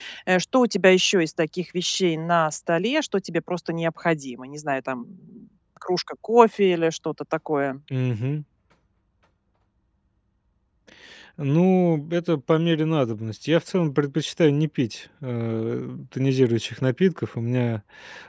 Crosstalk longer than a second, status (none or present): none